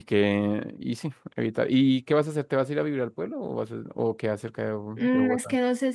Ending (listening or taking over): taking over